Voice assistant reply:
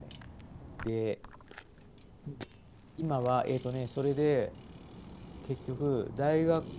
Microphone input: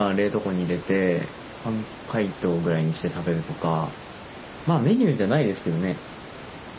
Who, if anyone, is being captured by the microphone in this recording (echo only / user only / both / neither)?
user only